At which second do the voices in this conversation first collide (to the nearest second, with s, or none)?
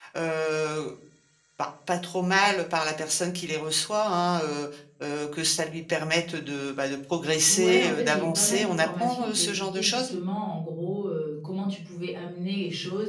7 s